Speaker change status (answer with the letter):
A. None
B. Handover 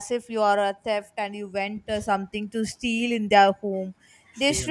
A